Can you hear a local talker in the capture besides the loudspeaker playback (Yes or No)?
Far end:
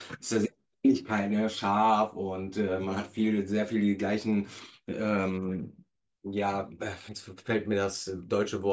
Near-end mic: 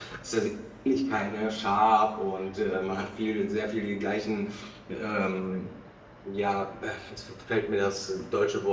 No